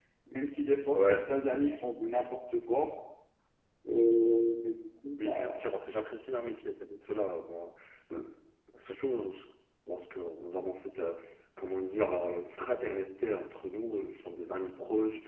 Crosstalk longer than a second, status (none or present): none